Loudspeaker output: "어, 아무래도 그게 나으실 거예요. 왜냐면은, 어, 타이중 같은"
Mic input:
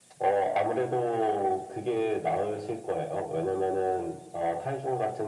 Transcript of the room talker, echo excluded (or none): none